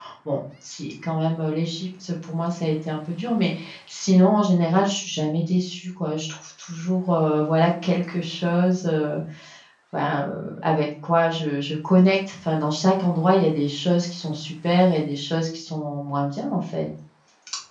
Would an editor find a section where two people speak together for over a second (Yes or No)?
No